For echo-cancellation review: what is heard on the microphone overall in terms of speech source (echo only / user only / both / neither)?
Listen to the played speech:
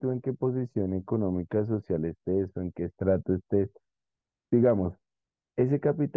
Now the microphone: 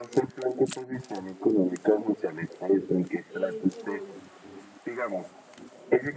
both